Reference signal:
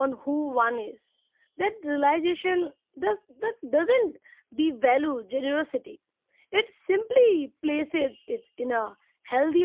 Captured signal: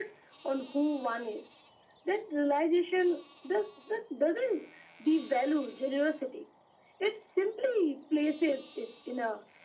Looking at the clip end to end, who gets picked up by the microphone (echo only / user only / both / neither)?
echo only